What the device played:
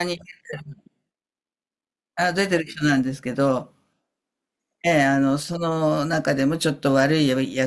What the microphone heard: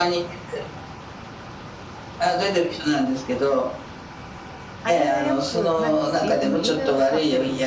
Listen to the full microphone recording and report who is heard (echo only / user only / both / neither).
both